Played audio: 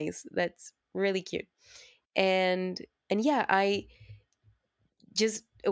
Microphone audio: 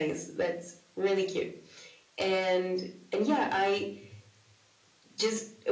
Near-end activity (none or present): none